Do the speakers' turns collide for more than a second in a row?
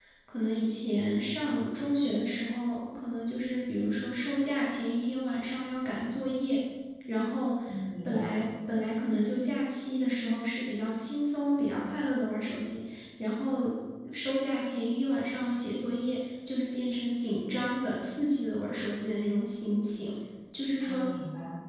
No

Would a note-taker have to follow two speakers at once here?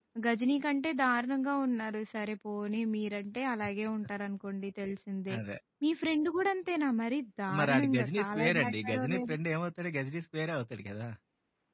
Yes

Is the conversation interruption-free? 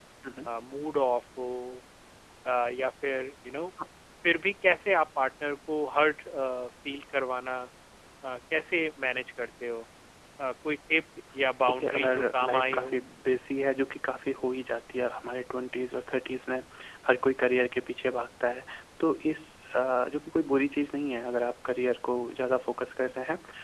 No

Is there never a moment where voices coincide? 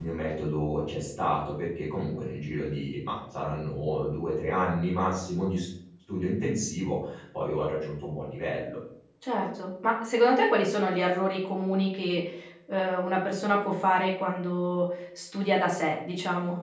Yes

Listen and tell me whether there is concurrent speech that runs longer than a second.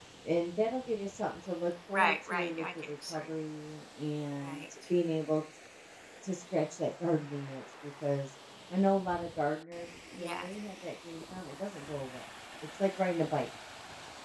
Yes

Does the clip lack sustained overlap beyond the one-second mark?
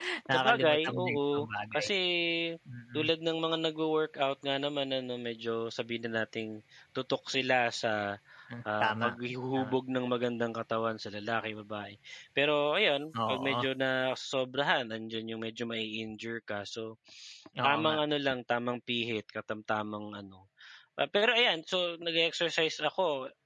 No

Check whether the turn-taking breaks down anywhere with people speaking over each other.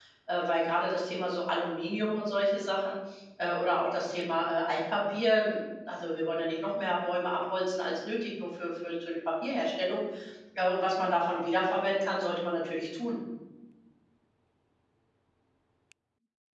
No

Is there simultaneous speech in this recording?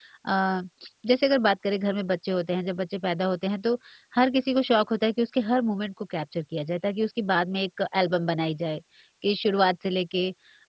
No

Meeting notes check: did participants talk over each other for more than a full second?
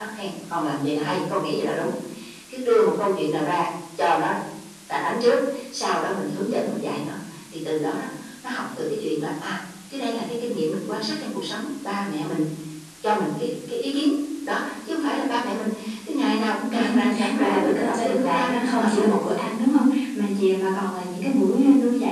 Yes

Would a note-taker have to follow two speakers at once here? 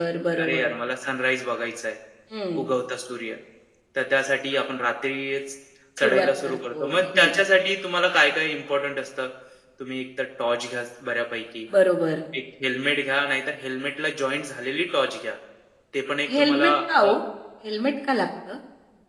Yes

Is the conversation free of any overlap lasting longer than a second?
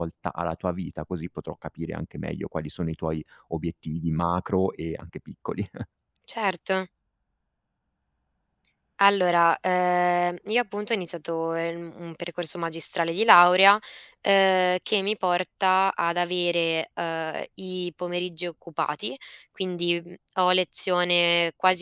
Yes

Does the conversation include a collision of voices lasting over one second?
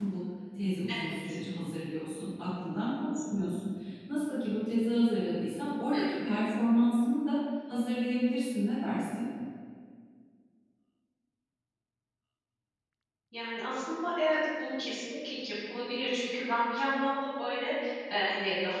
No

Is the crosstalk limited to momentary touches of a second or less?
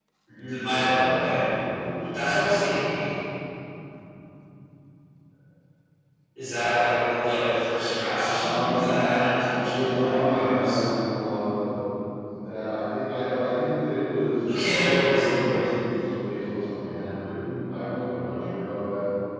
No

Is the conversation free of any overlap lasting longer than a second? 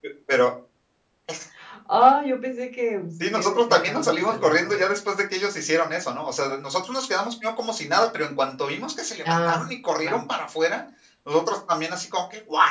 No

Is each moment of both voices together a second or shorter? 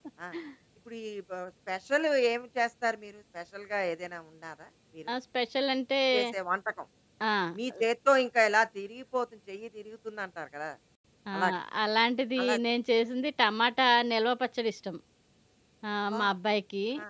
Yes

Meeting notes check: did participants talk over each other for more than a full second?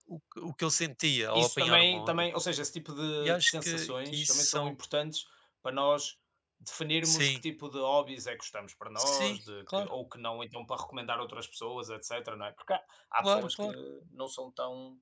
Yes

